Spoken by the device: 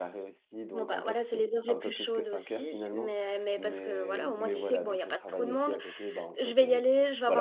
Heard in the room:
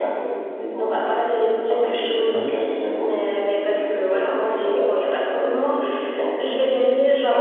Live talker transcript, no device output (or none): Ouais.